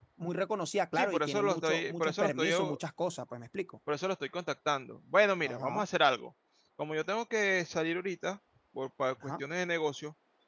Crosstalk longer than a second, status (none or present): present